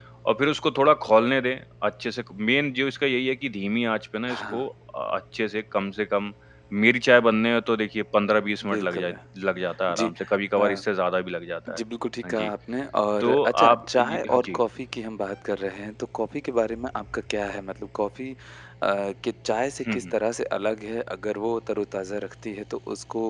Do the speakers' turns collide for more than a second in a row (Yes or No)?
Yes